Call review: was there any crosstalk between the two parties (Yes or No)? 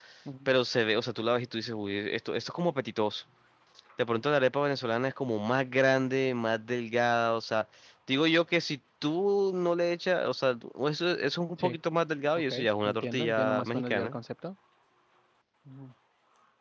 Yes